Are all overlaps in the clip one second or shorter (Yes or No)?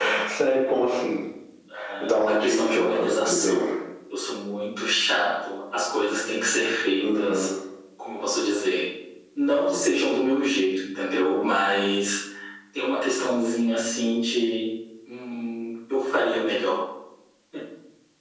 No